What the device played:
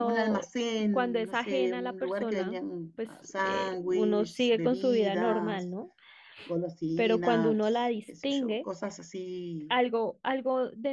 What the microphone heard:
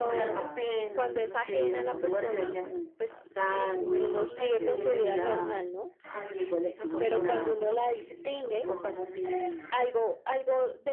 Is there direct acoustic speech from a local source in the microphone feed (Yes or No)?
Yes